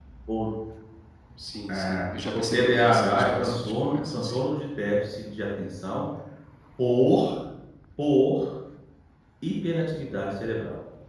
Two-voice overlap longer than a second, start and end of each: 1.7-4.4

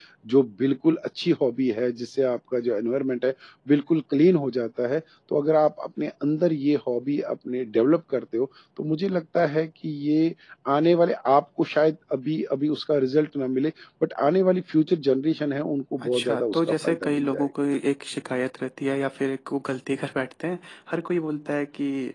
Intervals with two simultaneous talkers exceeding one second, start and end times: 16.0-17.5

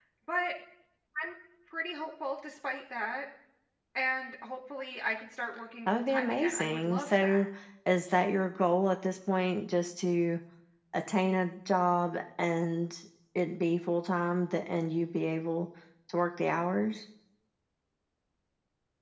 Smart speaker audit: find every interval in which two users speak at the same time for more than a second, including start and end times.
5.9-7.5

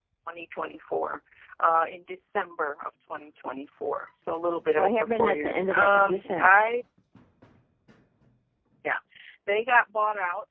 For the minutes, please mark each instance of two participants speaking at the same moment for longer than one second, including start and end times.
4.8-6.6

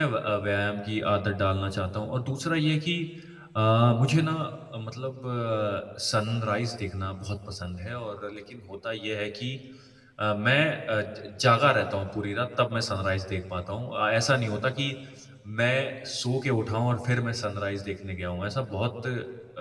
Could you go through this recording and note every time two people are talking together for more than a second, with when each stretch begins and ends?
none

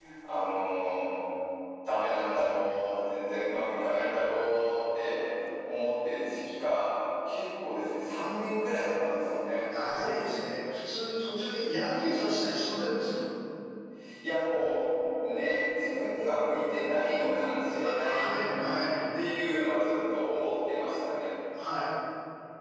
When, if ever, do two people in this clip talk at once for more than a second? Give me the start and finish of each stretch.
none

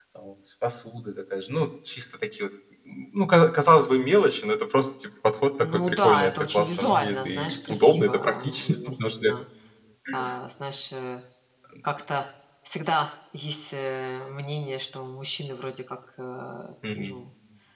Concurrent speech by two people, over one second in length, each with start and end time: 5.6-9.3

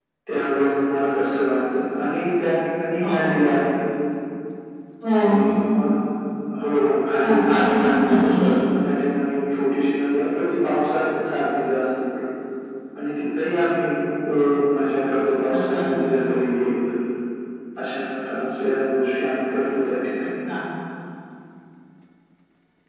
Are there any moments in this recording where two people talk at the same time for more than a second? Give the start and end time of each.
7.2-8.5

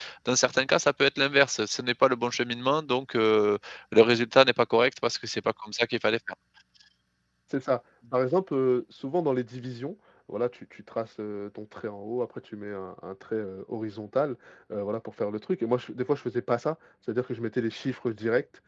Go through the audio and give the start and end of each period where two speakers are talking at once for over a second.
none

